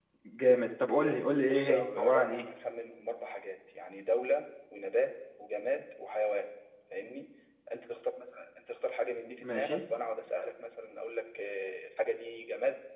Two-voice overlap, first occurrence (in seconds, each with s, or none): 1.0 s